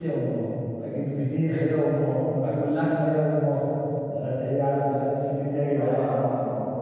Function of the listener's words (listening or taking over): taking over